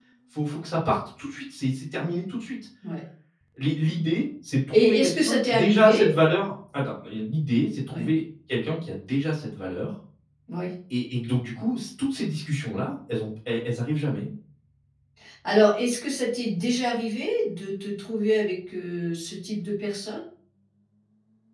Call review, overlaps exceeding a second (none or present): present